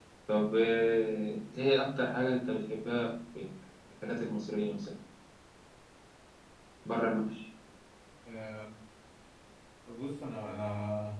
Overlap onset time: none

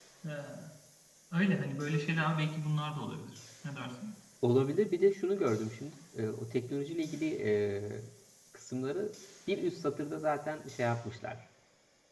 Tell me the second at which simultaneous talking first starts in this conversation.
none

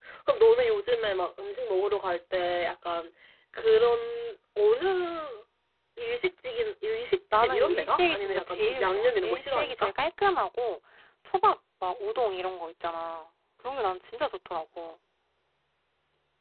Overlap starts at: 7.3 s

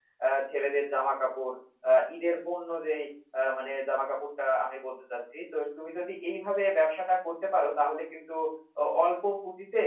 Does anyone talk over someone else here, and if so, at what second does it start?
none

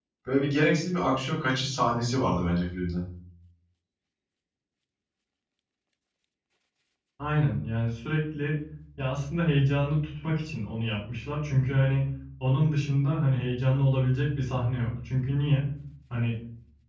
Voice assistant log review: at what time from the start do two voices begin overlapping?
none

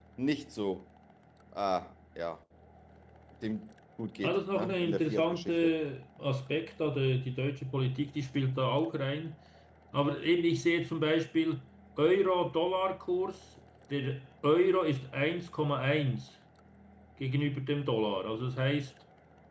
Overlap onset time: 4.2 s

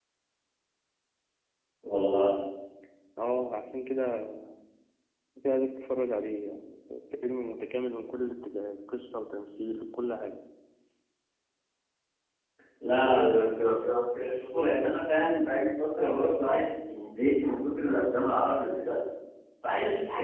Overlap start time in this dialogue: none

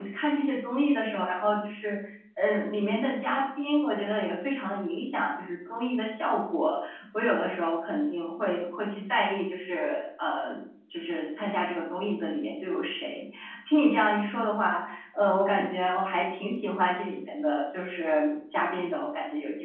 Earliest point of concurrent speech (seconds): none

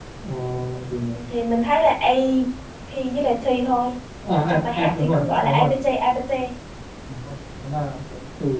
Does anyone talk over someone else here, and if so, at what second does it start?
4.4 s

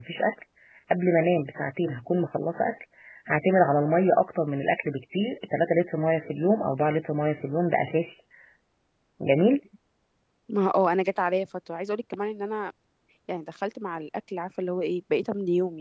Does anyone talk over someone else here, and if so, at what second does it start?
none

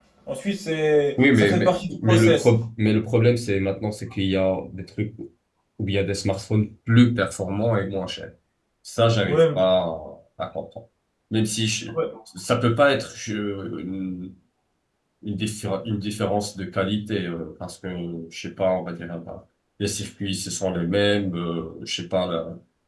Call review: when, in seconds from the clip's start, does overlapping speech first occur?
1.2 s

